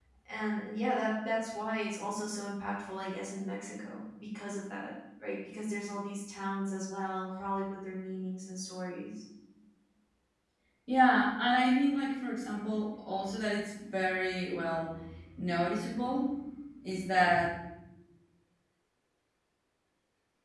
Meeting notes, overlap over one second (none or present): none